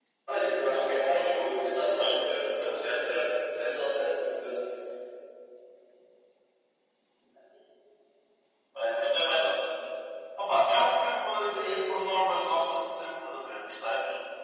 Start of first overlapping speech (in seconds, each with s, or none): 0.7 s